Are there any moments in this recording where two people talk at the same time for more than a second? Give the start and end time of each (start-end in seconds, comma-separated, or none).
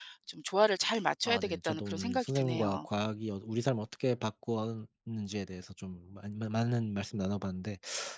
1.2-2.9